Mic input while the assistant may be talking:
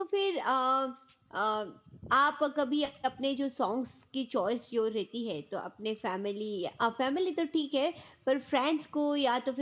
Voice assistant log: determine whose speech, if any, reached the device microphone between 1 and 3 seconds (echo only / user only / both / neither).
user only